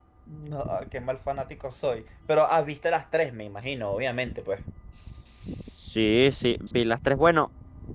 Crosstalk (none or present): none